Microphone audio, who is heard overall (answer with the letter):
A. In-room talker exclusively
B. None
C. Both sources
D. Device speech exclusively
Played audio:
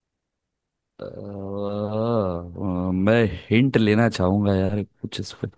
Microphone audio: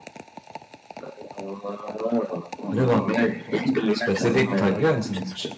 C